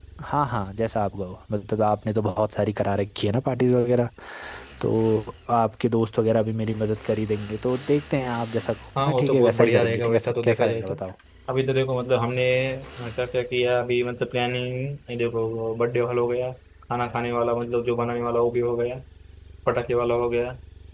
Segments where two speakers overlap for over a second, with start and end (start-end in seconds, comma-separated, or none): 9.0-10.9